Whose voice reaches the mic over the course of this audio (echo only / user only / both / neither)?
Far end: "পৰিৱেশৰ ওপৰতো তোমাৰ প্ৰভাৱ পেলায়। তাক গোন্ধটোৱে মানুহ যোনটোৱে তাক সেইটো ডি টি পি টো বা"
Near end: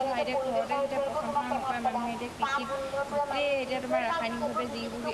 both